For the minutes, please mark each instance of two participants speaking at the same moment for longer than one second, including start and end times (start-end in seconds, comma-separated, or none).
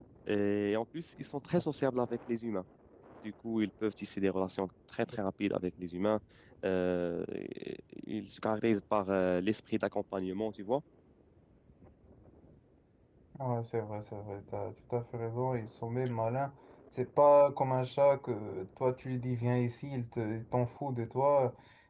none